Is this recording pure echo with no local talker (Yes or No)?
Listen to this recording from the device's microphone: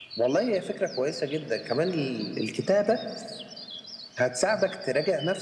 Yes